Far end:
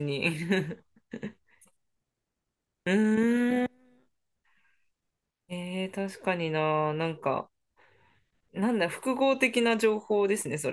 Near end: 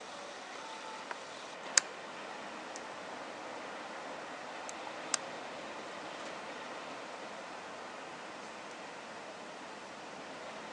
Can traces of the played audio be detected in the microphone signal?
No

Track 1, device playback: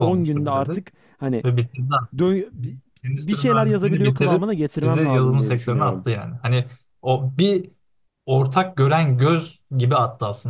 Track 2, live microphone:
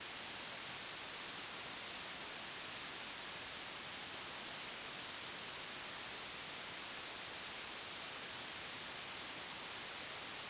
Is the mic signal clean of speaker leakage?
Yes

